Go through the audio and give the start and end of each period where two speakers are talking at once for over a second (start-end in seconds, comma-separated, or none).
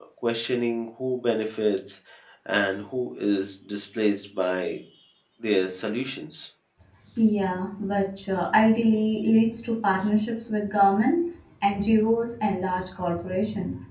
none